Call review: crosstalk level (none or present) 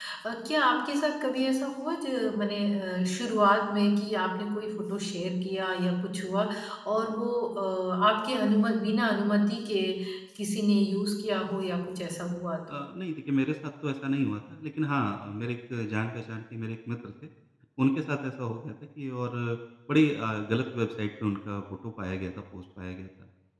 none